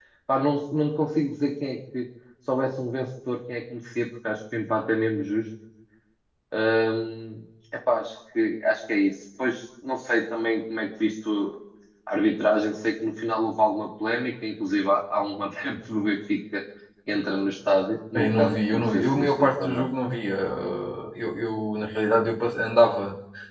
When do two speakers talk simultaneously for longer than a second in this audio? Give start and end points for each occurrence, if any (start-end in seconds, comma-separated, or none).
18.1-19.9